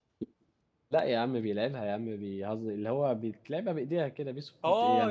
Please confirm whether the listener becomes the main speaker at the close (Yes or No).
Yes